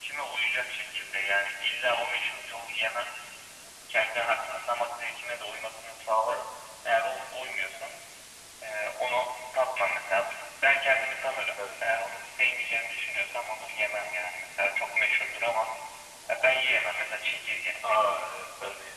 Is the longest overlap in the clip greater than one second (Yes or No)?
No